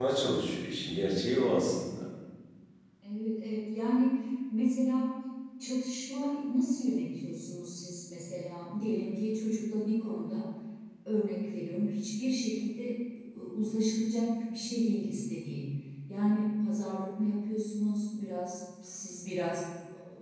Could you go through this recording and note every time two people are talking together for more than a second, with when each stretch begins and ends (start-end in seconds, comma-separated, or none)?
none